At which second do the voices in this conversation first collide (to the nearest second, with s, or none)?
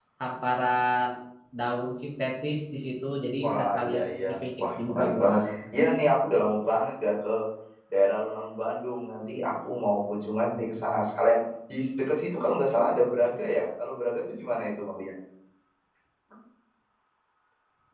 3 s